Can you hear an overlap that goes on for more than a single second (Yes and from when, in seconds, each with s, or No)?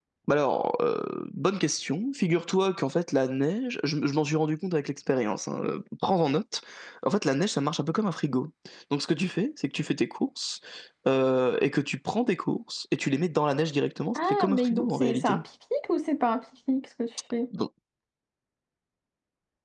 Yes, from 14.2 s